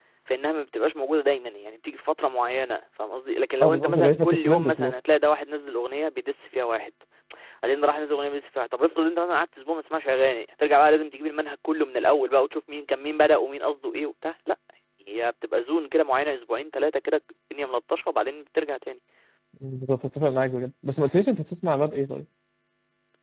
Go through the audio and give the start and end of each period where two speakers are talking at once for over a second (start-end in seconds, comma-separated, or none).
3.6-4.9